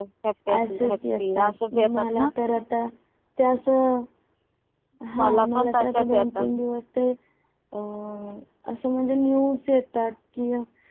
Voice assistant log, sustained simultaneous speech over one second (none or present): present